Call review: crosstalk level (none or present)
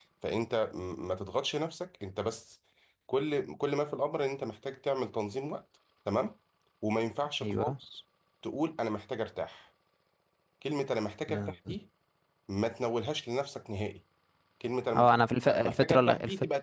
present